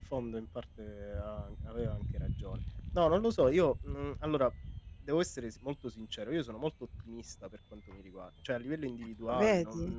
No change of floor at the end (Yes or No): Yes